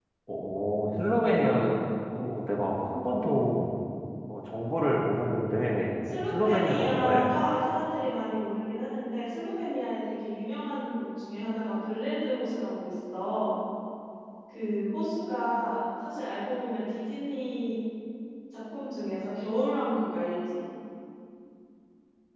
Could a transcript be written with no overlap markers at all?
No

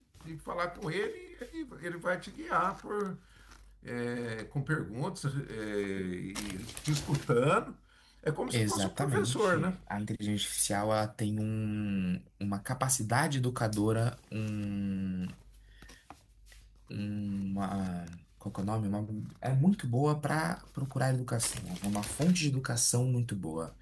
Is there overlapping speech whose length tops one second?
Yes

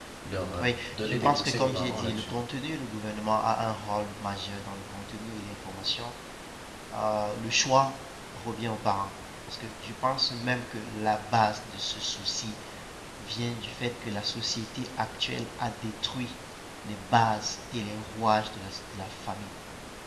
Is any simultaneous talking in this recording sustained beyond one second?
Yes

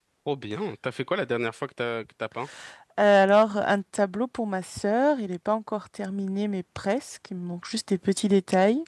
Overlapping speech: No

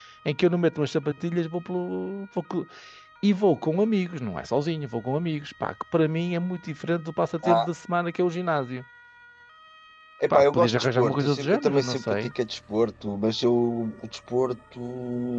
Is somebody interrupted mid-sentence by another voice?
Yes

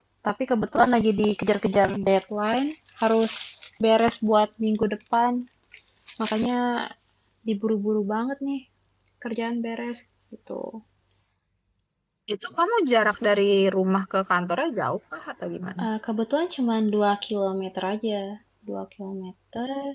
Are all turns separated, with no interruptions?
Yes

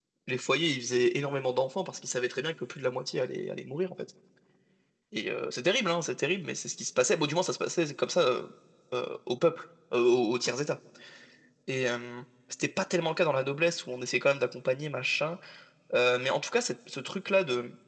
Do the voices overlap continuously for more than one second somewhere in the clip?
No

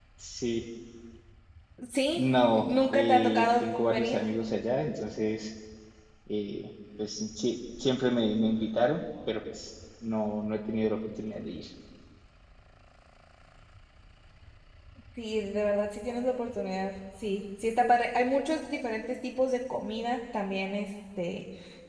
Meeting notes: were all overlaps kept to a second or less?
No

